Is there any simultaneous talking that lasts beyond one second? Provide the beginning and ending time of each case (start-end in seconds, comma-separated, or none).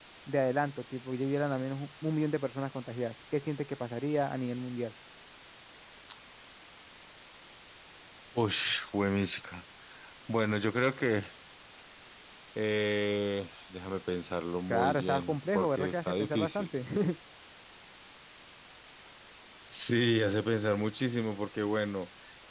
14.7-16.7